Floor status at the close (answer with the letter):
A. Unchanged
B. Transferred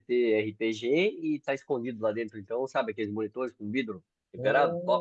B